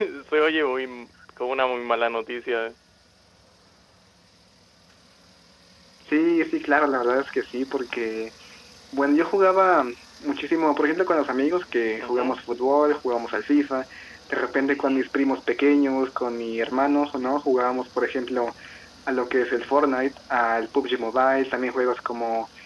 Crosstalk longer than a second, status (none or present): none